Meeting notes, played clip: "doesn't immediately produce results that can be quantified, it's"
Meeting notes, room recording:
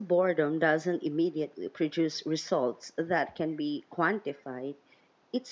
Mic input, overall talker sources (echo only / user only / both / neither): echo only